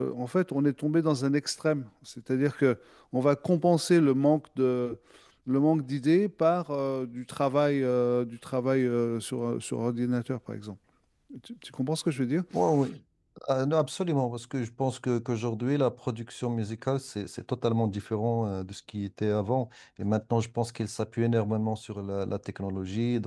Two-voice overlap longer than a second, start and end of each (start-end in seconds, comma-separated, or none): none